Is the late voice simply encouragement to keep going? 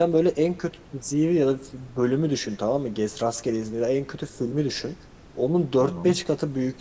Yes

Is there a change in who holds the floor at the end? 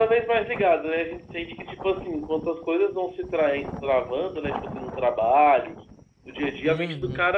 No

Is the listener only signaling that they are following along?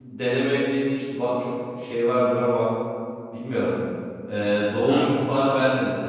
Yes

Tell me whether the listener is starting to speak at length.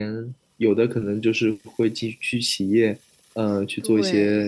No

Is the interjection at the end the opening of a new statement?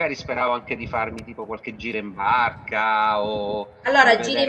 Yes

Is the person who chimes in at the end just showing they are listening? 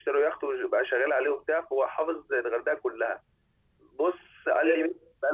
Yes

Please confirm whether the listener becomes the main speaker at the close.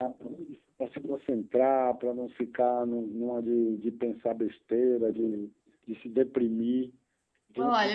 Yes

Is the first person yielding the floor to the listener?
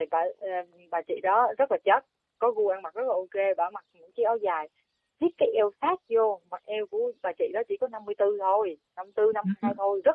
Yes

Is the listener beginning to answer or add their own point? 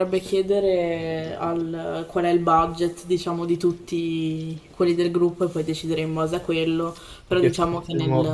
Yes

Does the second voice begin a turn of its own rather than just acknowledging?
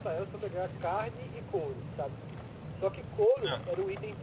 No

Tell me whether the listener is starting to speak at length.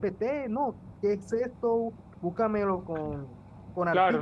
Yes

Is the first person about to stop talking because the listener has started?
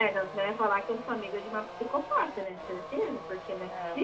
Yes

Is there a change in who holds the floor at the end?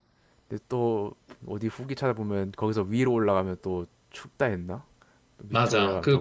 Yes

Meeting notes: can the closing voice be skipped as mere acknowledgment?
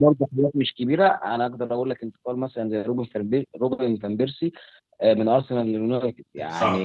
Yes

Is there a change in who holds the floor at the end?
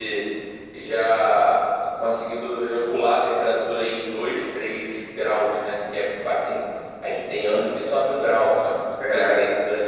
No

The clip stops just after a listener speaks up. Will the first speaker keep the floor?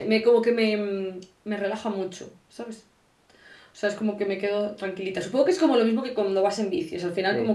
Yes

